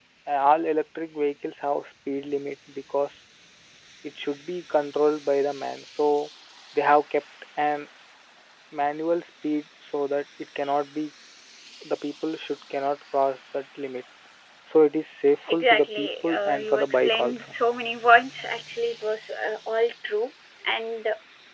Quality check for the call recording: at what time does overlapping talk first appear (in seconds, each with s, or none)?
15.5 s